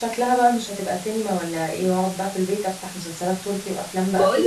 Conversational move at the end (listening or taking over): taking over